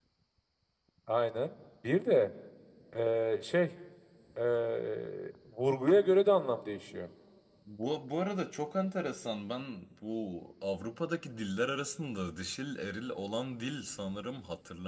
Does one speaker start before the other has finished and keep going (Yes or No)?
No